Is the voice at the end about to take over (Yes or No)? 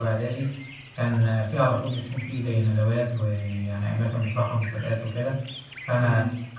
No